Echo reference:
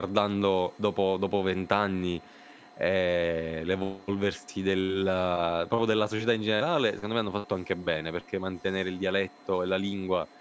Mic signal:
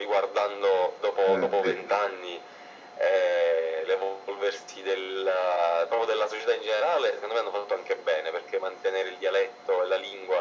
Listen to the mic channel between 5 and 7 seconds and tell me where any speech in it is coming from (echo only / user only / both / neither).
echo only